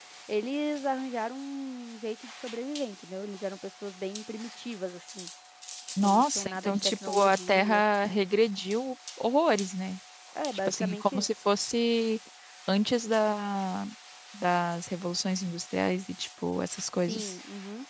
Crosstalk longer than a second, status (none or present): present